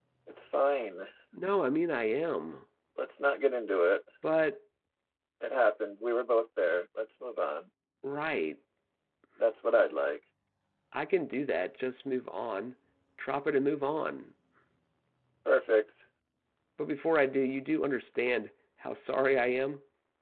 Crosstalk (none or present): none